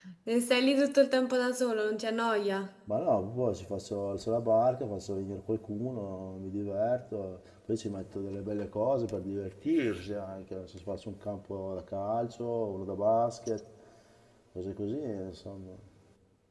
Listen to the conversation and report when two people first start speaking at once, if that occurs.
none

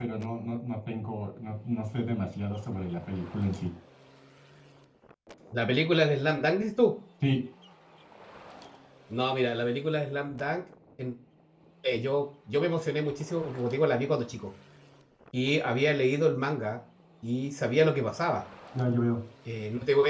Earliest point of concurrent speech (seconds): none

